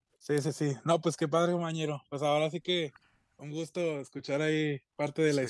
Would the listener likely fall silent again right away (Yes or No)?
Yes